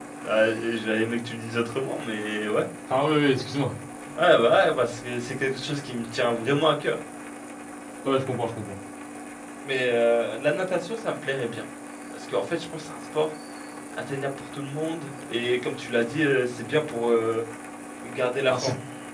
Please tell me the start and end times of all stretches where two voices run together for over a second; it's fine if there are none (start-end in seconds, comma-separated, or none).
none